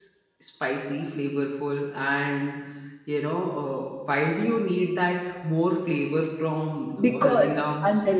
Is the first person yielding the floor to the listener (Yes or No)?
Yes